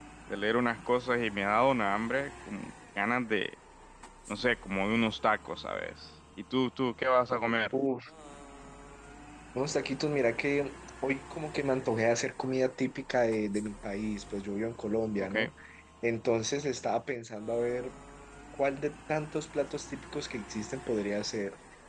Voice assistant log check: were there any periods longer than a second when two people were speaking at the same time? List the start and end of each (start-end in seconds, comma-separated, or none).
none